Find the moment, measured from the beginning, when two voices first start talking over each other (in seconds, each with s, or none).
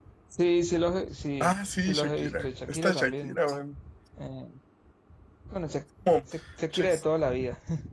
1.4 s